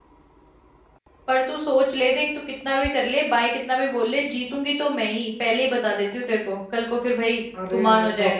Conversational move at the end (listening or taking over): taking over